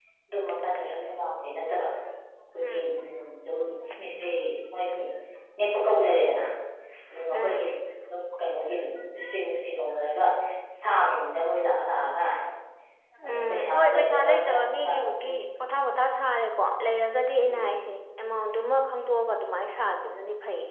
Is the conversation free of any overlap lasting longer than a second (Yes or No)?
No